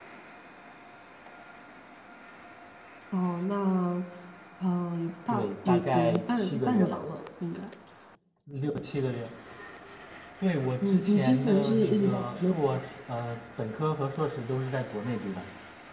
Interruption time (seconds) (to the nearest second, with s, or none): 5 s